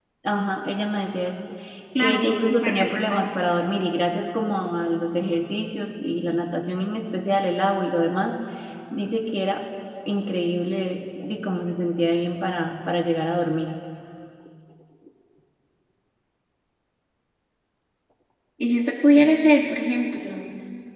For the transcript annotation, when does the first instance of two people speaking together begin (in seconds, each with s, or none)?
2.0 s